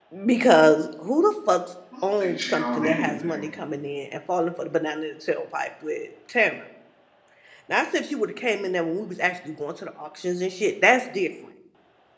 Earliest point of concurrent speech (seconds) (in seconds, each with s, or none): 2.2 s